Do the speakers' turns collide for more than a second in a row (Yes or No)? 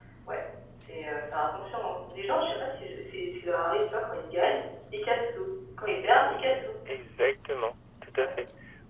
No